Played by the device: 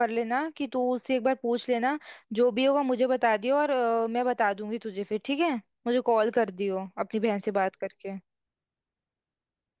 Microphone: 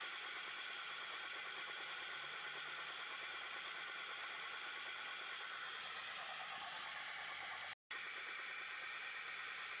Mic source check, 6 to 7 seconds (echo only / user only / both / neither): neither